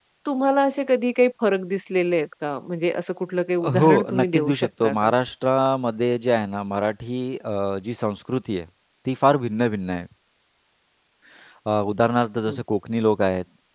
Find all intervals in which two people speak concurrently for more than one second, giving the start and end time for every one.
3.7-5.1

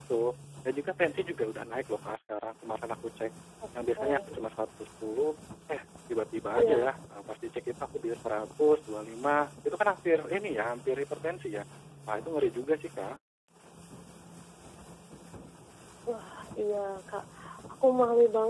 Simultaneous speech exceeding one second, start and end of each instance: none

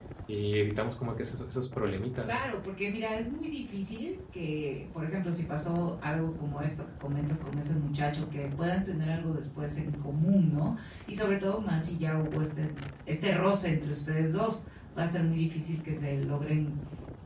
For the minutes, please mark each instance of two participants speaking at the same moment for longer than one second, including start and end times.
none

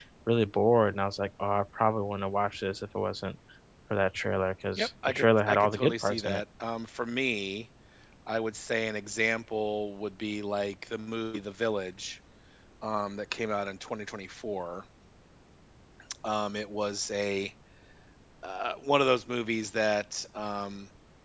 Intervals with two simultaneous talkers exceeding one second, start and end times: 4.8-6.4

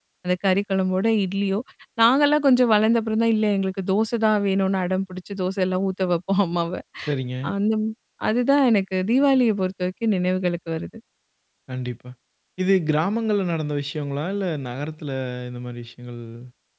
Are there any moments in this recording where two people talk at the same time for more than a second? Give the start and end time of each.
none

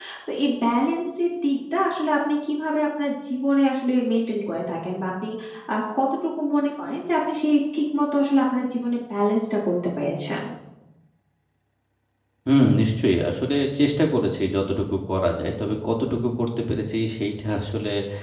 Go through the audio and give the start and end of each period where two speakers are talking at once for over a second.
none

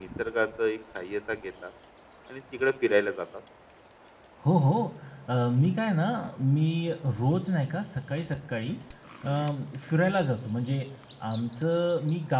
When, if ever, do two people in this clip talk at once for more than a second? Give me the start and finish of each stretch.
none

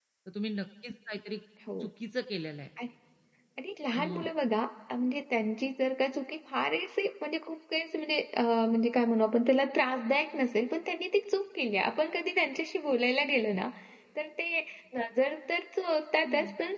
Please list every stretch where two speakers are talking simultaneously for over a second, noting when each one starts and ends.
none

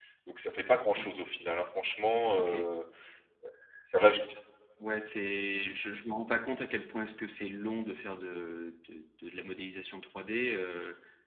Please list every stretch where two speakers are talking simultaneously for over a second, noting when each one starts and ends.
none

